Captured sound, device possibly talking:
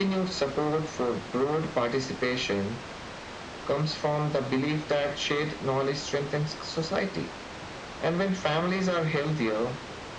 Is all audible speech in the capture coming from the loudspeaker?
Yes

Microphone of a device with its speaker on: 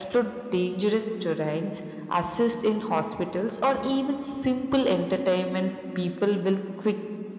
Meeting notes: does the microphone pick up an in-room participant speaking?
No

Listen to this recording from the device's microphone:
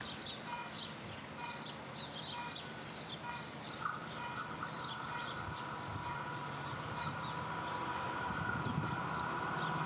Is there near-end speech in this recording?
No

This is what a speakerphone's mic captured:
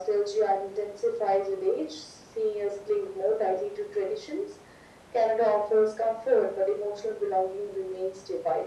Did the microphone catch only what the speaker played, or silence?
Yes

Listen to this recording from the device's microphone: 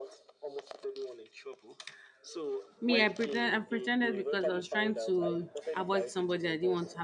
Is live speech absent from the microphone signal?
No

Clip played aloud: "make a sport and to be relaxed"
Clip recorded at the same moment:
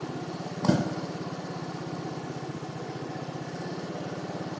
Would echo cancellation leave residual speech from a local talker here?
No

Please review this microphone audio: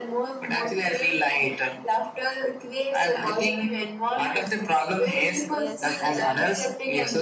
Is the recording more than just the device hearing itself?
Yes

